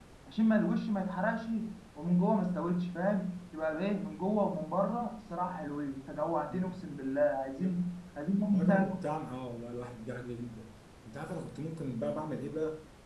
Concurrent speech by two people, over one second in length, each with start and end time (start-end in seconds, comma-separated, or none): none